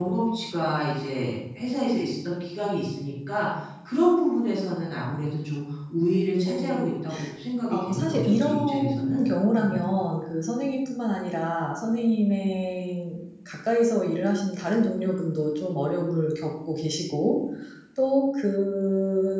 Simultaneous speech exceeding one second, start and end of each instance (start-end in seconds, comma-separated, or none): 7.7-9.2